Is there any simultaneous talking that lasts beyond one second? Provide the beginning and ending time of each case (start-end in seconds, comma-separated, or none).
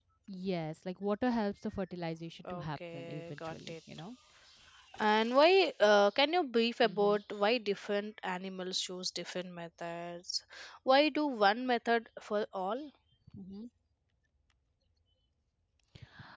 2.5-3.7